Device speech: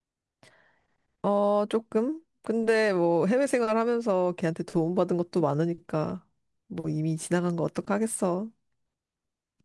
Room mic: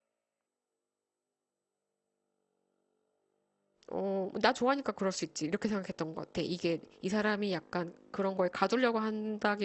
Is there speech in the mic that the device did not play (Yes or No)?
Yes